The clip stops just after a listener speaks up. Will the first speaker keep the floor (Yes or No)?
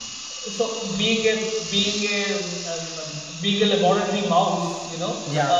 Yes